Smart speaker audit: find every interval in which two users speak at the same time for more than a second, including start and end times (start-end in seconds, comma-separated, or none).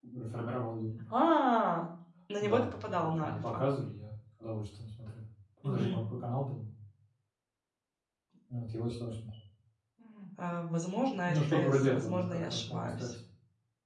2.4-3.6, 11.3-13.1